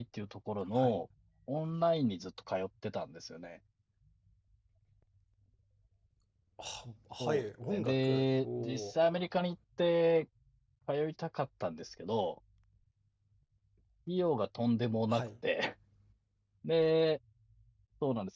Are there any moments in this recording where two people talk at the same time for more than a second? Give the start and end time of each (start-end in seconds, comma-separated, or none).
7.7-8.9